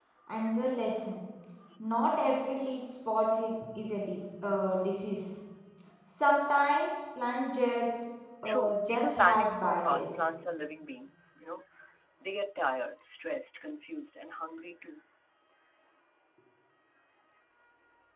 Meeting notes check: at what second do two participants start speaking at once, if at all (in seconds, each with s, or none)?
8.4 s